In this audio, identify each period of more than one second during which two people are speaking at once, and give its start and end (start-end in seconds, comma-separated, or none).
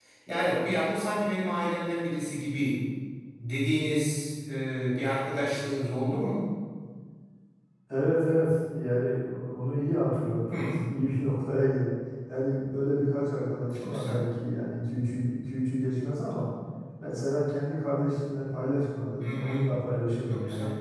none